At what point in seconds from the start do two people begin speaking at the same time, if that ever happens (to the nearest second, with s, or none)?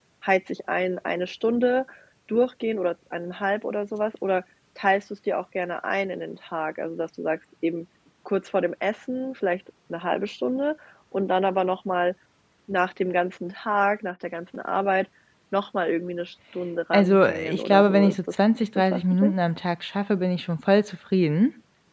17 s